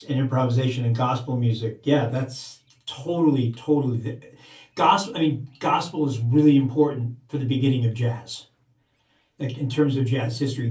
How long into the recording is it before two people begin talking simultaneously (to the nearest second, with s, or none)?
none